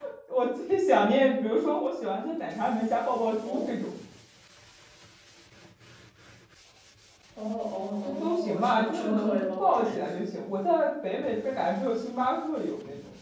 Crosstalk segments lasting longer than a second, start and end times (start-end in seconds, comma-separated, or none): 8.0-10.0